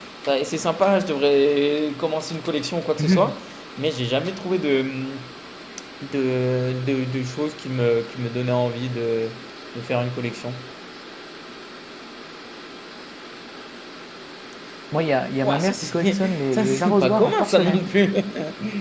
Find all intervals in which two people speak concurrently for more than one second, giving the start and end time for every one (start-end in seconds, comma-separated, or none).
15.4-17.9